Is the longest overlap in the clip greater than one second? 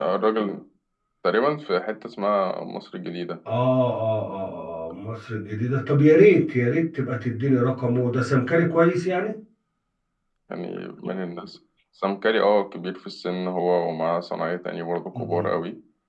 No

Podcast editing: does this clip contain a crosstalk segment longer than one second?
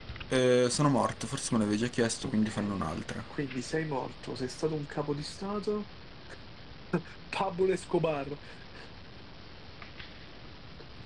No

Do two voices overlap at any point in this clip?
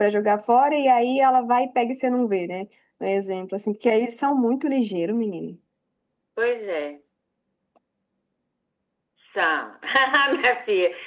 No

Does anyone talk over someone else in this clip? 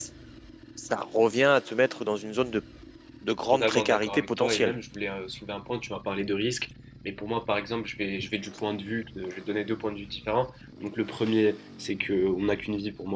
Yes, from 3.5 s

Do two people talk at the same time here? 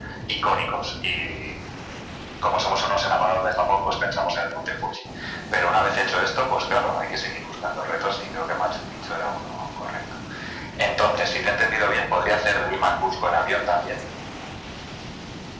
No

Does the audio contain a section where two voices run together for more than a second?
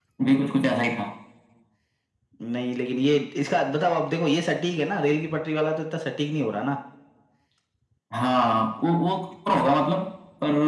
No

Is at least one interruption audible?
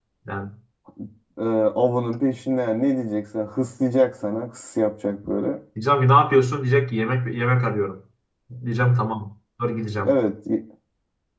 No

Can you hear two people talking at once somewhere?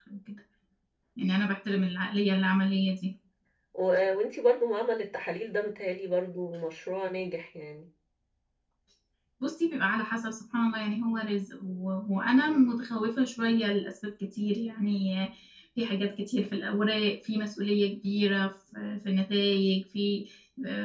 No

